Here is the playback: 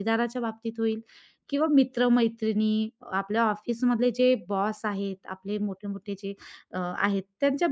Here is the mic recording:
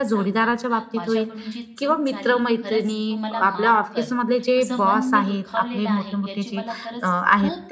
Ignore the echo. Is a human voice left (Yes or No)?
Yes